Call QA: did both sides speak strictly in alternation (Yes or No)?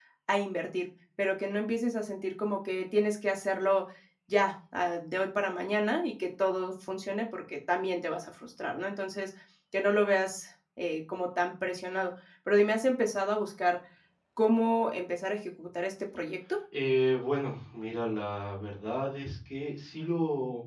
Yes